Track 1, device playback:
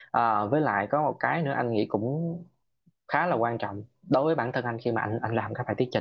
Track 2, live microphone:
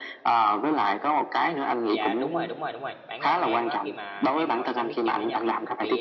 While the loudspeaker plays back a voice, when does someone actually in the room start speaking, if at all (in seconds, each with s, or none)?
1.9 s